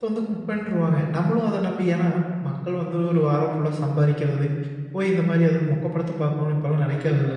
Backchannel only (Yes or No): No